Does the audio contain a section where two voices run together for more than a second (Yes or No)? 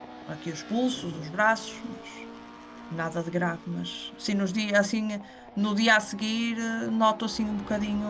No